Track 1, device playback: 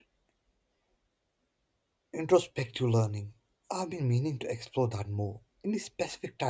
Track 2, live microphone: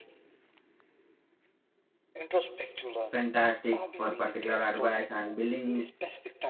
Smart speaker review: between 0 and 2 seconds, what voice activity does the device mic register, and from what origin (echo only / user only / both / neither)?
neither